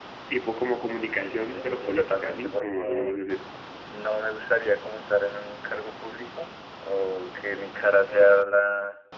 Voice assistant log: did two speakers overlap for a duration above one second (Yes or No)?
Yes